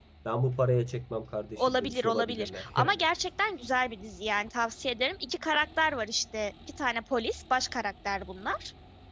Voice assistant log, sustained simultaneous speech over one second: present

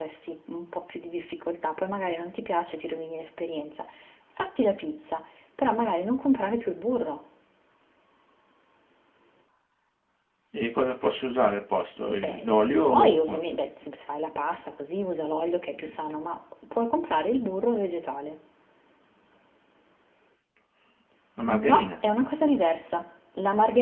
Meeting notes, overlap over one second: present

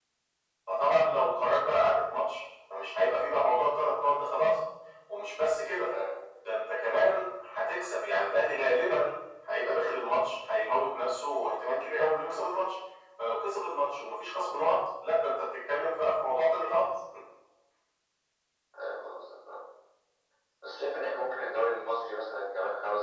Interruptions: none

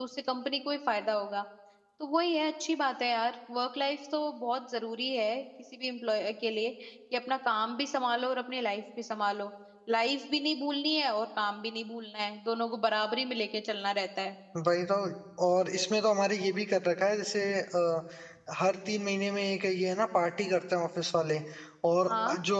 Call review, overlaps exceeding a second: none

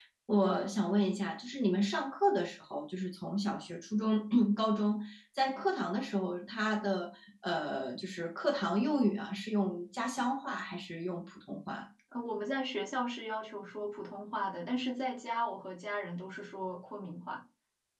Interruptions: none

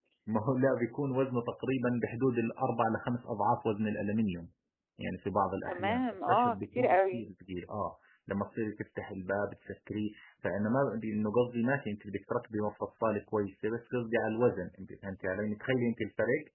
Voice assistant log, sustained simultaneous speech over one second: present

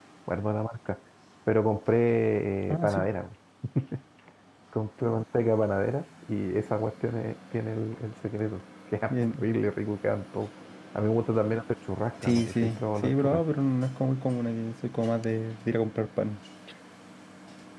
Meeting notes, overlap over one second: present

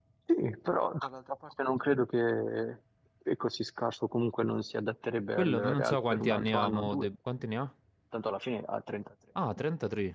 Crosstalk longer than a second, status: present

